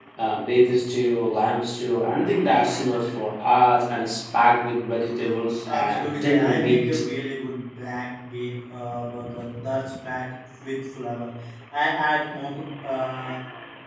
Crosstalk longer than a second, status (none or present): present